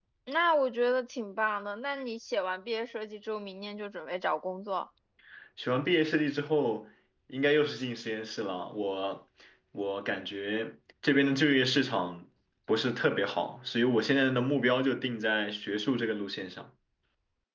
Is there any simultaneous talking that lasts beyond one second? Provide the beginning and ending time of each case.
none

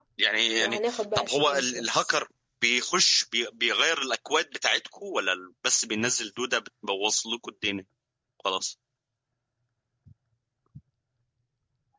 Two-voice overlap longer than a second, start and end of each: 0.6-2.2

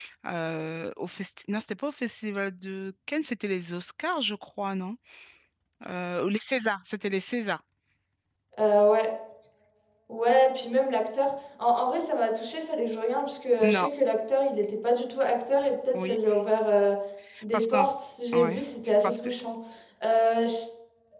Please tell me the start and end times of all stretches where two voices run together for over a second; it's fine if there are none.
none

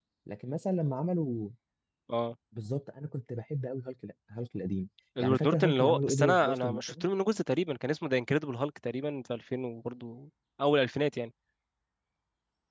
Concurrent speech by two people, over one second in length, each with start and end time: 5.2-7.0

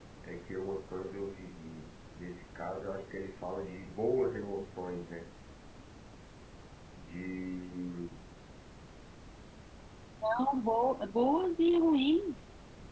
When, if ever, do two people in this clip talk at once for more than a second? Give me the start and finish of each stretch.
none

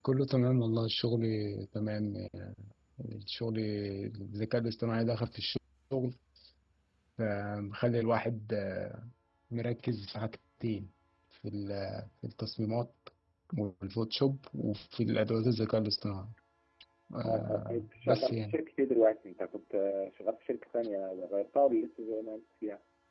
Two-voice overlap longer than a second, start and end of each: 17.2-18.6

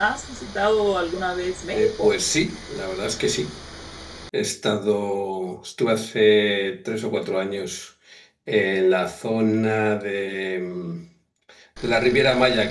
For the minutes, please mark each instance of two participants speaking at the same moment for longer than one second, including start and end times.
none

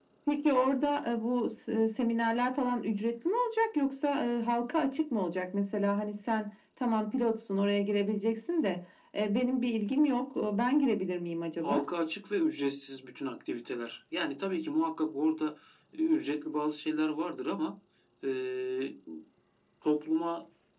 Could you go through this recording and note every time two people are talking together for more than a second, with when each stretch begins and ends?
none

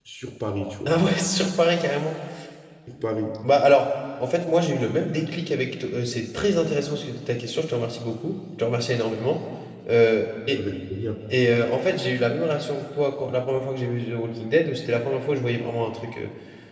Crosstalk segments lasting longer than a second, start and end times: none

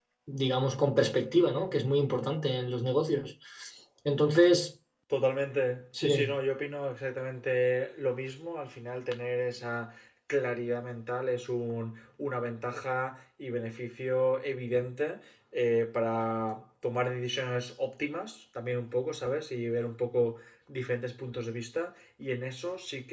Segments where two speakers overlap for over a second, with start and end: none

